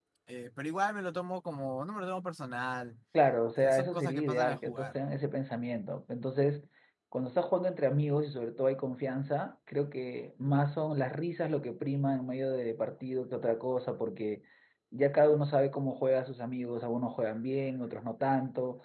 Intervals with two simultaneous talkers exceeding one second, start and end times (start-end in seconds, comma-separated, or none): 3.6-5.0